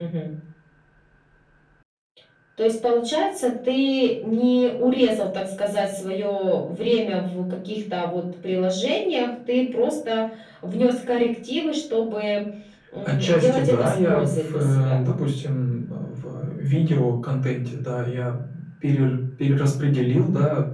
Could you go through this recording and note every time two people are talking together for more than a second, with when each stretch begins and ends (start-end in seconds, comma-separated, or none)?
13.0-15.0